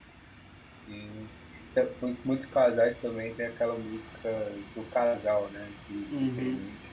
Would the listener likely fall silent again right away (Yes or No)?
No